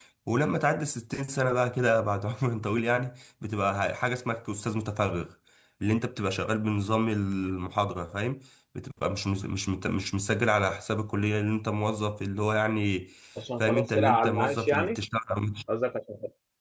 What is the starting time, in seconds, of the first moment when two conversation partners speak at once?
13.6 s

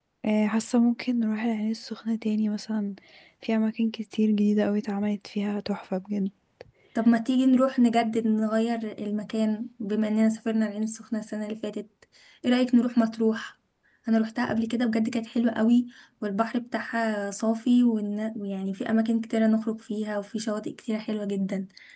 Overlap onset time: none

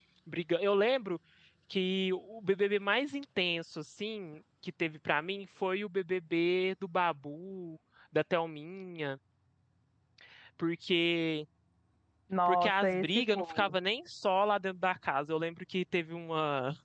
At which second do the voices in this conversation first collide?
12.5 s

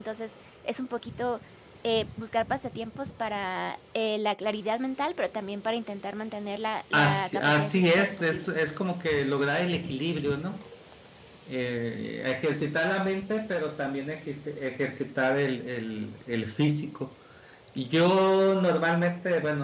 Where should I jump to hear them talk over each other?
6.9 s

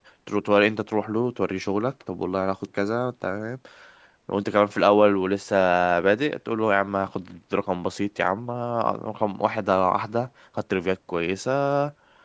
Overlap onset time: none

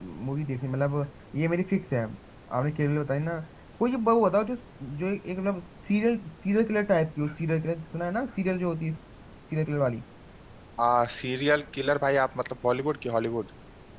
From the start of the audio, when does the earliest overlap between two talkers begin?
none

